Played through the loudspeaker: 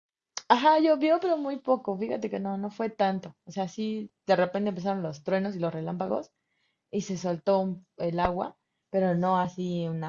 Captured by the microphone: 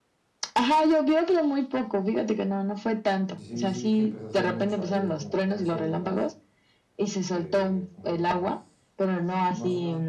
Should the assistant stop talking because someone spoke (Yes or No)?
Yes